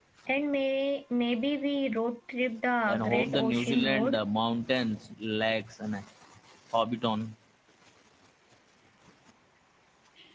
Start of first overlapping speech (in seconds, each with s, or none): 2.9 s